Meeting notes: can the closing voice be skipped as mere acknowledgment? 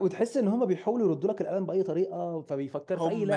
No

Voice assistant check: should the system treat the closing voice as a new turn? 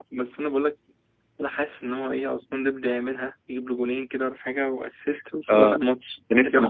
Yes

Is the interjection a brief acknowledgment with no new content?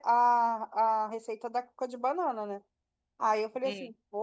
Yes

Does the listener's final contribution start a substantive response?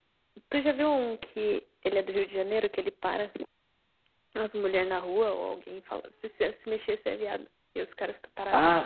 Yes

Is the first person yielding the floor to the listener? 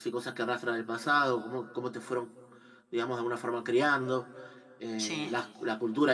No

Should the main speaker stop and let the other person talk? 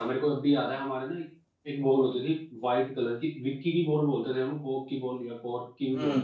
Yes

